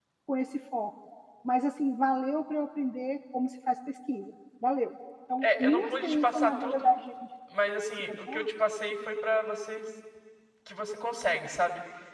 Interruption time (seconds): 5 s

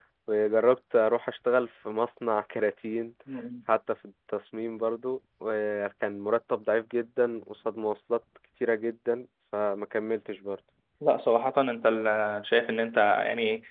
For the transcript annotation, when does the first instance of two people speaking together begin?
none

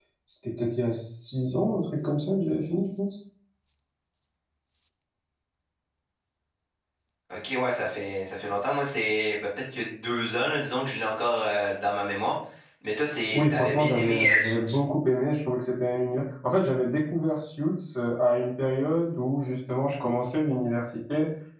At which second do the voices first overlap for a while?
13 s

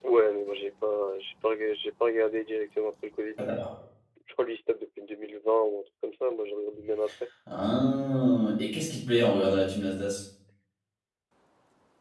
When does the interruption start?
none

